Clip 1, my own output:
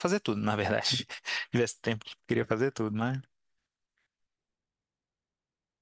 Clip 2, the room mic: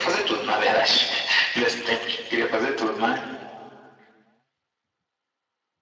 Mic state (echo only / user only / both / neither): echo only